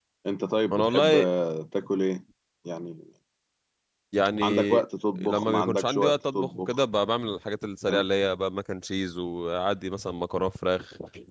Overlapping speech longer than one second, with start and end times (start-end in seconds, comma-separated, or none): 5.2-6.8